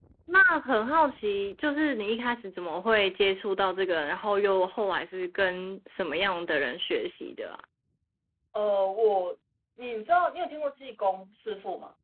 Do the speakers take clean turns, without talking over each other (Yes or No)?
Yes